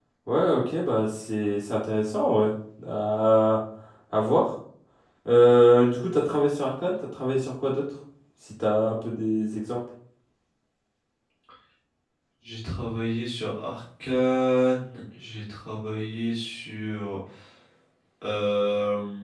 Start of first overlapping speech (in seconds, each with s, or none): none